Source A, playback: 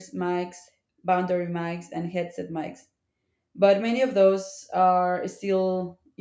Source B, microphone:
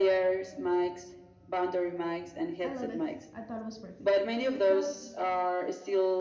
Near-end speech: present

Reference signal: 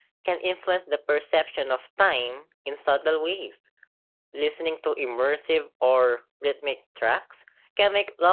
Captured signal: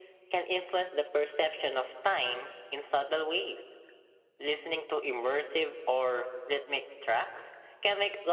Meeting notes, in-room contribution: none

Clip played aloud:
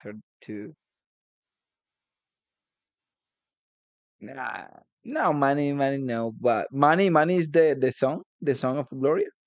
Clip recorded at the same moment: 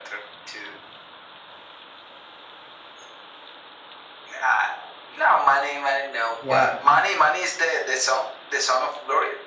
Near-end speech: present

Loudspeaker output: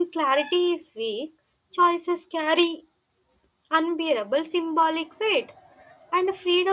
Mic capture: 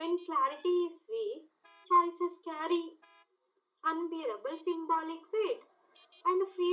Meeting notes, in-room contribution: none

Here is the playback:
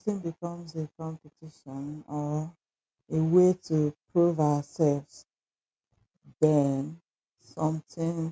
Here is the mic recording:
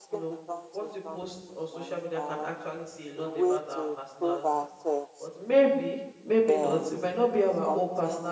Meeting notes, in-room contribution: present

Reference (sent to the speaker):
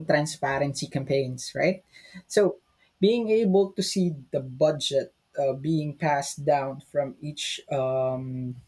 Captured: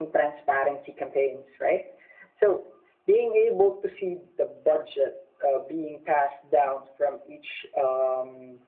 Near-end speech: none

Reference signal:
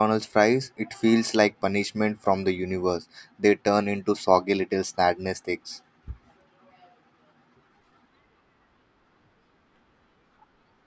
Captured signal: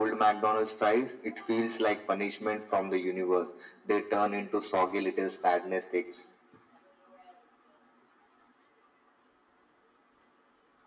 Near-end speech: none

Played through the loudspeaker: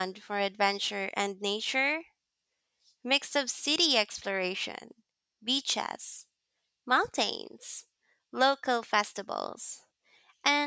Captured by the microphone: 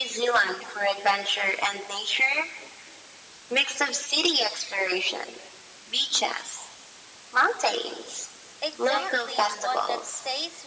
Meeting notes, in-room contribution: present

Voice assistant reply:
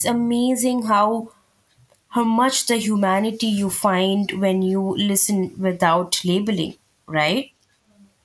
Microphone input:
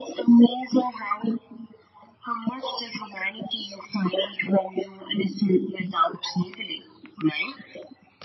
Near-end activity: none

